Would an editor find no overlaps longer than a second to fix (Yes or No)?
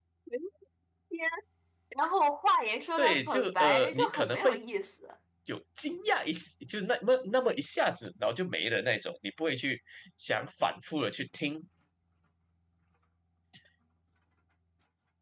No